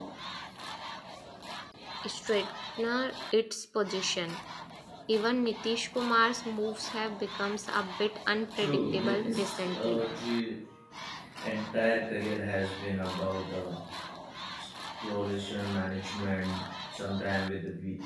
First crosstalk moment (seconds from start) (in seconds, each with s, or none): 8.6 s